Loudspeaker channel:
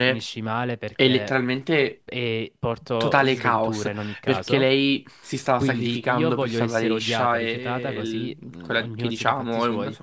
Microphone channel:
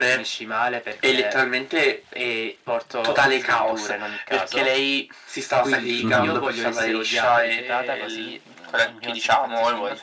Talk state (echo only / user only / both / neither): both